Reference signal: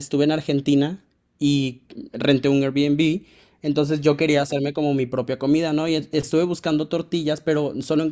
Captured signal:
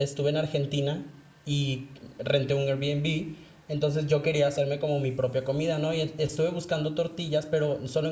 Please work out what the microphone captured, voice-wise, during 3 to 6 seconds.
echo only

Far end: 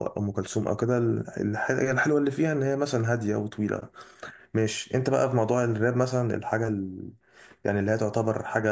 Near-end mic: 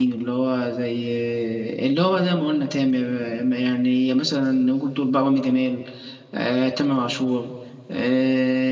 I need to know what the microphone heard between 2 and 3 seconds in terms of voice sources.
user only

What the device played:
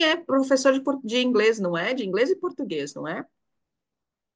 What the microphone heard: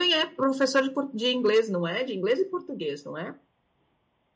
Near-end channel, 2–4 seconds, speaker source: echo only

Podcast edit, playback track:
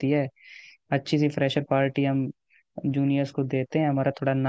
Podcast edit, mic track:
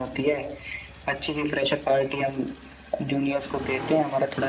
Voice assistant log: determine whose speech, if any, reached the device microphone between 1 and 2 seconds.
echo only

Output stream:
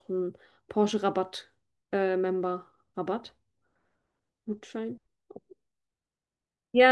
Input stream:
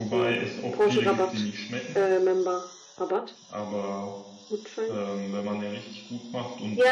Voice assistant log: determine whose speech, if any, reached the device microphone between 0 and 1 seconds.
both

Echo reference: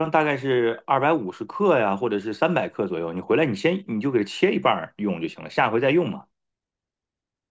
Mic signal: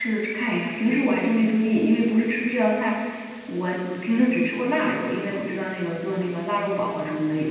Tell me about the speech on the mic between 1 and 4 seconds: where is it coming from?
user only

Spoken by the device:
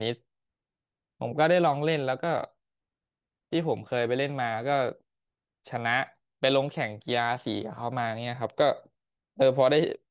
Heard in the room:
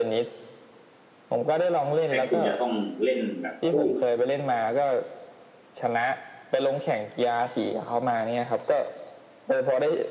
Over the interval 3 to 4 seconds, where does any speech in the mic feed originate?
both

